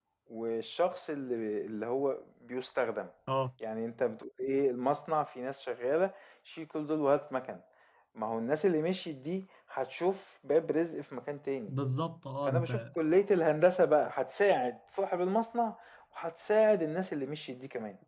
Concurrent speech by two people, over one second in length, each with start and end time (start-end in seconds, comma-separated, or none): none